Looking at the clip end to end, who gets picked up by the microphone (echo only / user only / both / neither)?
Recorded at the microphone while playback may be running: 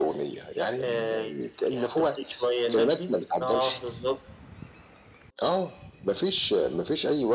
echo only